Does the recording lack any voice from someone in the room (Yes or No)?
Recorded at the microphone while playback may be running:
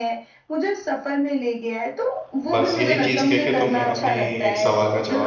No